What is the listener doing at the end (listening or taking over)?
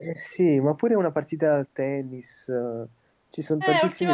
taking over